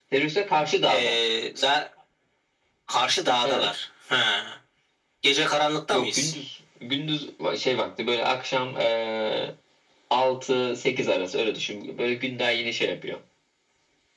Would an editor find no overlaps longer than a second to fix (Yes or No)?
Yes